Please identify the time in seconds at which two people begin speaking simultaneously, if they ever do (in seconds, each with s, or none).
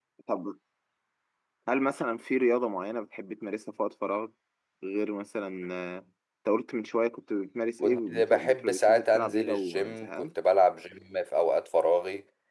7.8 s